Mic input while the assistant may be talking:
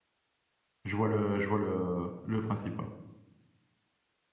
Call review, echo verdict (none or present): none